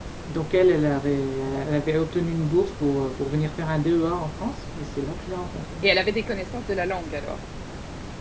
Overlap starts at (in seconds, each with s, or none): none